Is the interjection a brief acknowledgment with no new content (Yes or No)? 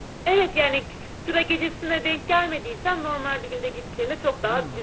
Yes